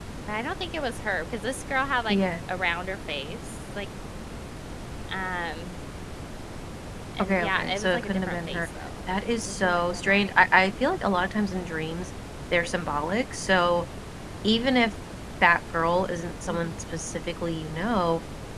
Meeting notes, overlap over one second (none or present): present